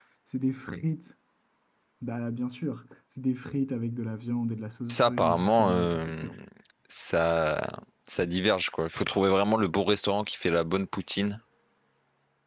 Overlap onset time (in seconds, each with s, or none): 4.9 s